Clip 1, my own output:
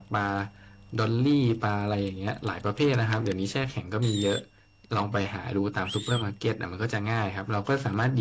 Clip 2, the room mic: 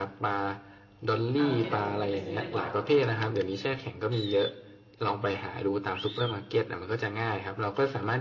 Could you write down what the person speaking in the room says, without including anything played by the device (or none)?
อ่าโอเคเดี๋ยวผมรีบไปซื้อดีกว่า